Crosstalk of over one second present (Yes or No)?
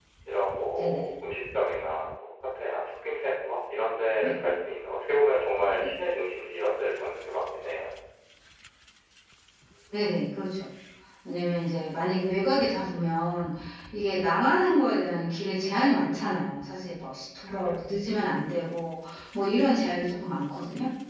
No